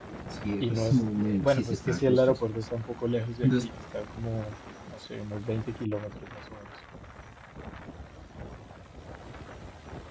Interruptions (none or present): present